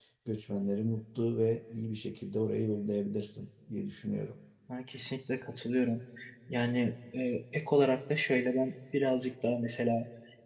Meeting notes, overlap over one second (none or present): none